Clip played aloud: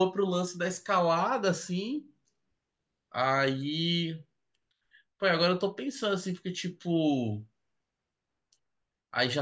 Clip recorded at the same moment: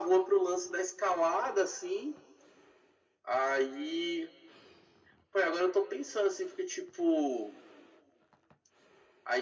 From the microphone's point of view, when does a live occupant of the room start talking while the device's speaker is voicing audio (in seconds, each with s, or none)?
none